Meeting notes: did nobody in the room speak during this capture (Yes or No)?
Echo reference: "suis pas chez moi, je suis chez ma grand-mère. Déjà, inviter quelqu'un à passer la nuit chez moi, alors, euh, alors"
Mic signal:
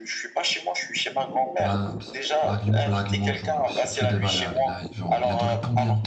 No